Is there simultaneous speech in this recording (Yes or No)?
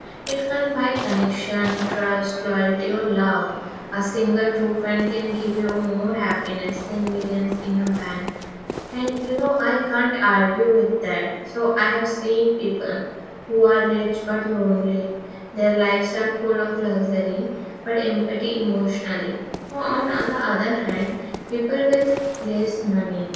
No